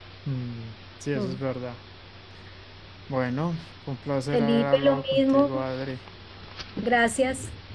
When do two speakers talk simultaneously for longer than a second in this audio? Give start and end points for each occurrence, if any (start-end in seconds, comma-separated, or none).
4.3-5.5